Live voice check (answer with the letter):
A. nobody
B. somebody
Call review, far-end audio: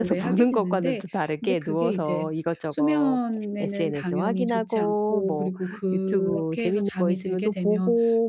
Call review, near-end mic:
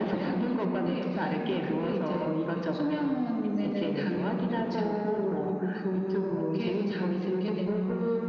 A